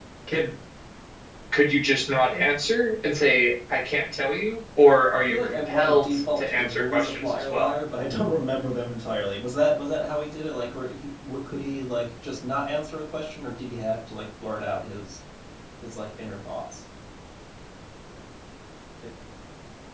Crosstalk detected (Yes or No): Yes